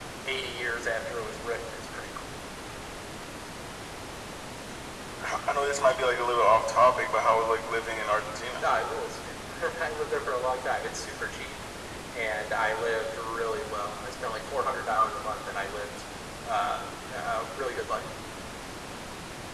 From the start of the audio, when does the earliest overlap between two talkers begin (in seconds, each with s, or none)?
none